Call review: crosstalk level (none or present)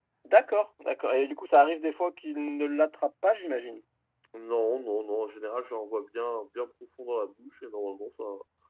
none